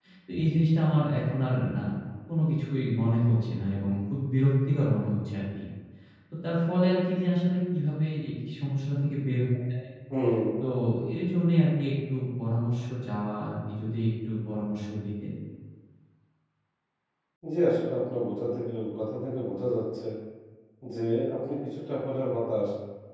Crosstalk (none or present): none